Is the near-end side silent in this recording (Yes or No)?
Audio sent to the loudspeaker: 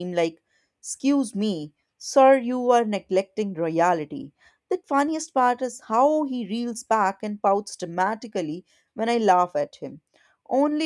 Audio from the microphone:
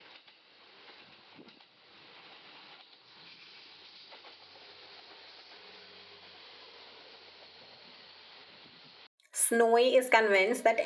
No